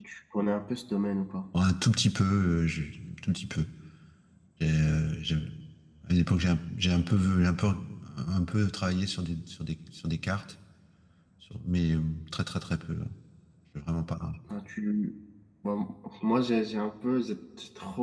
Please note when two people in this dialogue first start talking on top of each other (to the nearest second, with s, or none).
none